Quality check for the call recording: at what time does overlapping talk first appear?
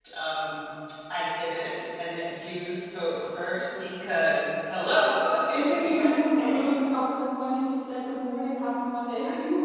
5.5 s

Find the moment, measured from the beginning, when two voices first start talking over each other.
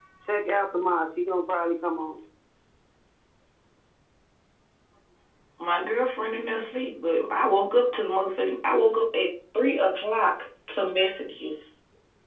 none

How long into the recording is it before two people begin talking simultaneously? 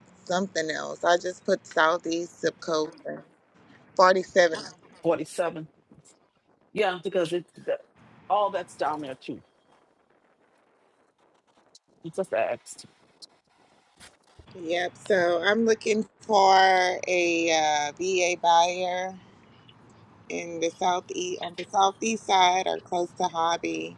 none

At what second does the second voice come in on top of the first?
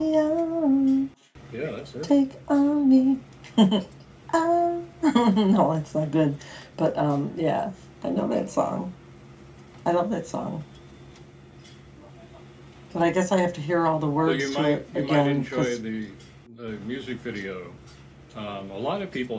14.3 s

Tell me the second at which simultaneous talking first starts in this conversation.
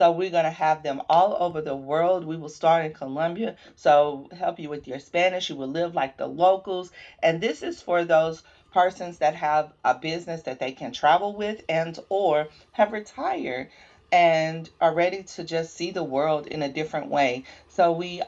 none

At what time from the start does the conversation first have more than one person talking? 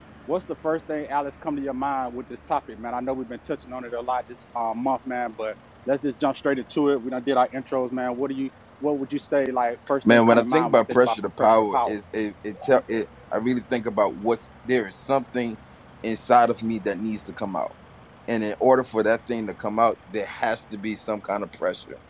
10.0 s

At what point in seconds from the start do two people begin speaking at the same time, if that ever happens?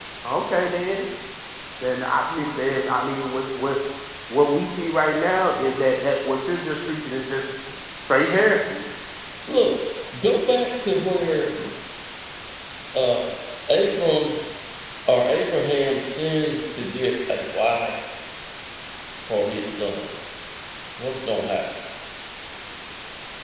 none

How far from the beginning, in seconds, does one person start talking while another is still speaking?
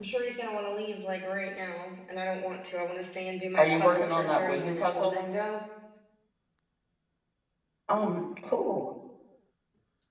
3.6 s

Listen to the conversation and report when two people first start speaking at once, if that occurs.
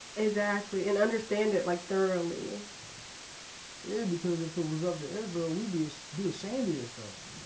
none

